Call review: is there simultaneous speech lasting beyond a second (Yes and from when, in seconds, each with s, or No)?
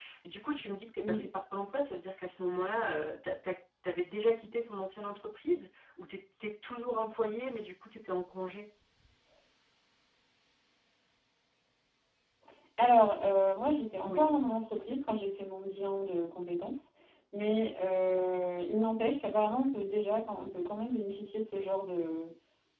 No